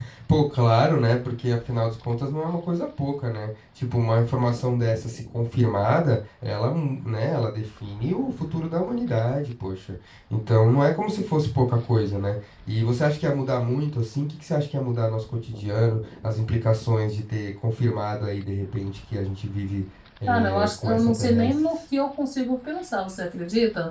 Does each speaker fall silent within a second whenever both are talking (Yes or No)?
No